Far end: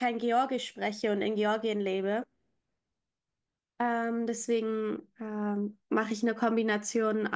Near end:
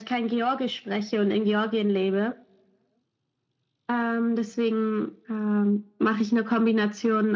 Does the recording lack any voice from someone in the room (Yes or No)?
Yes